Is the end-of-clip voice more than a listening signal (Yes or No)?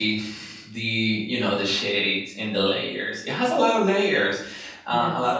No